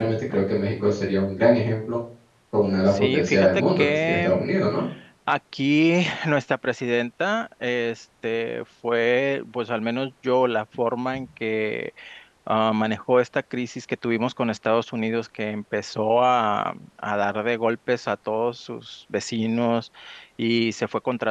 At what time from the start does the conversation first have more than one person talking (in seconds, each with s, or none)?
2.9 s